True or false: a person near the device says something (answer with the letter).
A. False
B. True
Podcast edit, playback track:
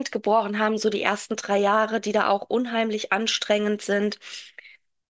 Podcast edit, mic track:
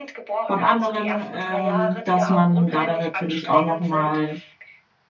B